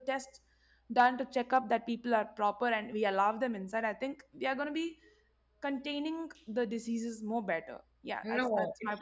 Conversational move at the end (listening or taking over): taking over